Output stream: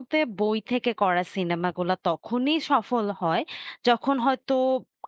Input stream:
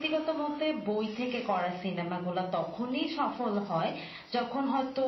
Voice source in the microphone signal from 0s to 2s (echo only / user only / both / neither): echo only